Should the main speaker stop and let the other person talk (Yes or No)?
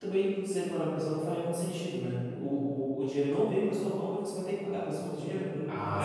Yes